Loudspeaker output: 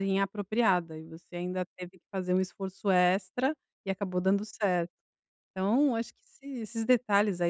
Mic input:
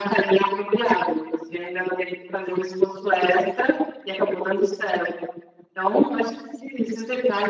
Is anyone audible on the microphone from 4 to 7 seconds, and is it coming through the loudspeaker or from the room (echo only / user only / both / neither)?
echo only